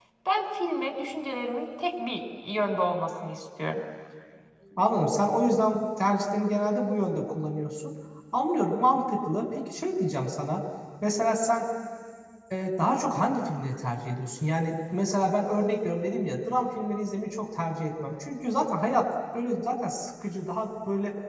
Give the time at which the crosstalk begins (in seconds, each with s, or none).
none